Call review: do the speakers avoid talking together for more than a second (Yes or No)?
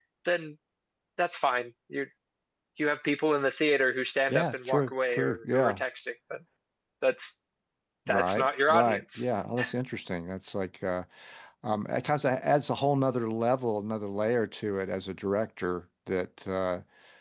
No